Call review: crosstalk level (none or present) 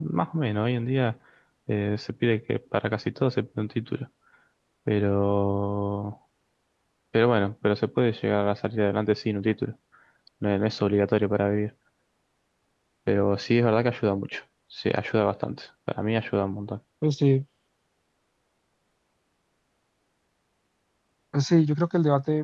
none